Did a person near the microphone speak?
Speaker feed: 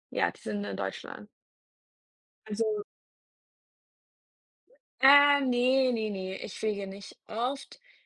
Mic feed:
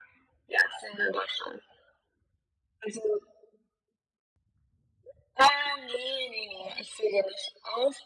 No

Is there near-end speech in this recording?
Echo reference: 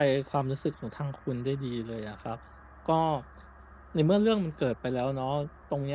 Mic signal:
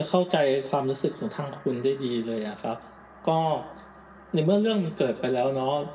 No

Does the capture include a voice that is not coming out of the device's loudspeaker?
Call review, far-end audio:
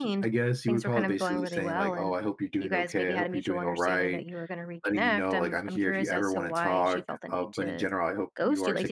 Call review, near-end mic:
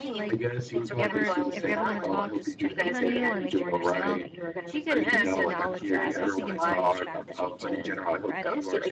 Yes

